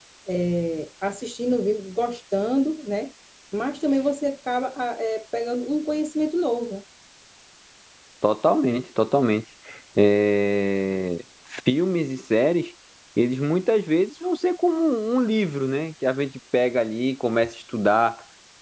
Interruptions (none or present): none